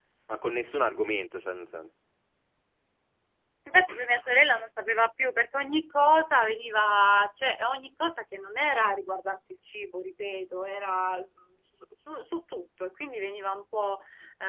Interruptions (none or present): none